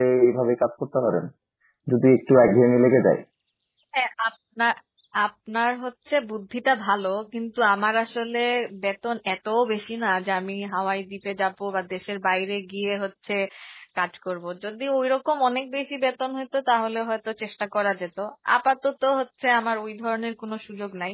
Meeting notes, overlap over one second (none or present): none